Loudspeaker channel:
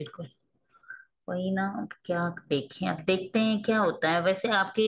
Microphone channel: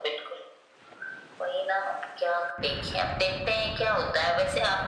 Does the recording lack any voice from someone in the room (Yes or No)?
Yes